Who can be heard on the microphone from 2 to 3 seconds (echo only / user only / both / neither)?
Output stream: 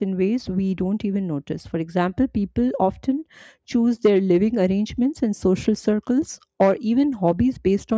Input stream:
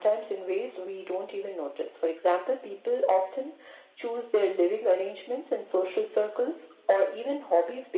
echo only